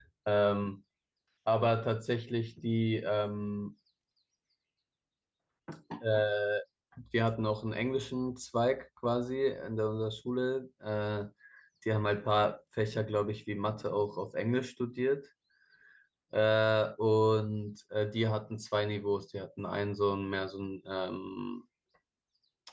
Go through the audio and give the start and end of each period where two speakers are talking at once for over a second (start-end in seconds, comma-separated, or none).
none